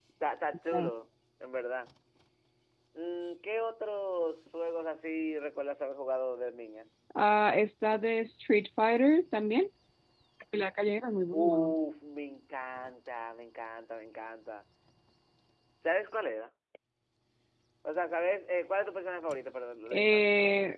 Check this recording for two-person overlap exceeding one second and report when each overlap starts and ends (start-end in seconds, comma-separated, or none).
none